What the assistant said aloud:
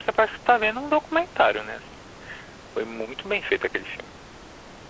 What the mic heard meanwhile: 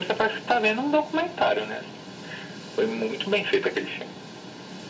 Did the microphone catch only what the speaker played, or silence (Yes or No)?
Yes